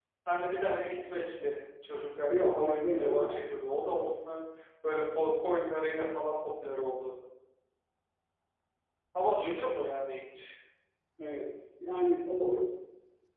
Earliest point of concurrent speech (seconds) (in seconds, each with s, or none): 2.3 s